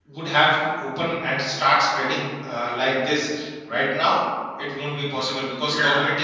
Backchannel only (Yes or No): Yes